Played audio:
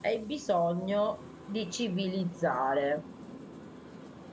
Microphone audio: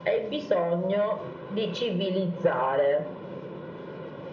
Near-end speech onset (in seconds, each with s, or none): none